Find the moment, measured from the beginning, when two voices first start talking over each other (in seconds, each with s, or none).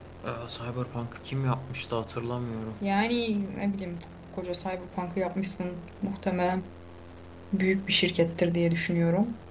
none